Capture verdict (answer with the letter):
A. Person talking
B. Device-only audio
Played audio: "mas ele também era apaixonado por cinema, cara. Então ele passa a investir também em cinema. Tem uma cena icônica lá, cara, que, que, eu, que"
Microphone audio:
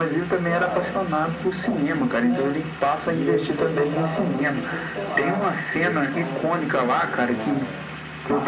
A